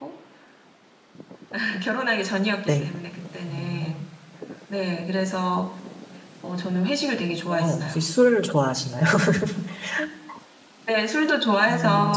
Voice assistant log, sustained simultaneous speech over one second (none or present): none